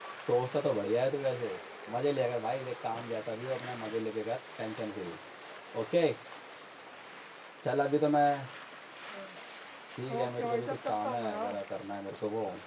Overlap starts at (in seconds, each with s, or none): 10.2 s